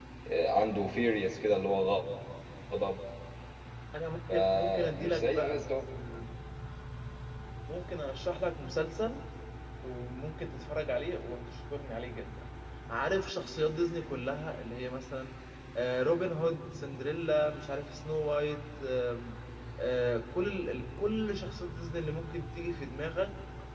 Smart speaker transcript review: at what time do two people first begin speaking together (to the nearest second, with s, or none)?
4 s